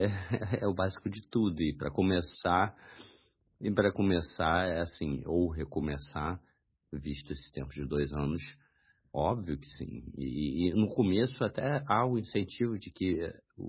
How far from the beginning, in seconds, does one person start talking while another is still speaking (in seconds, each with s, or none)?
none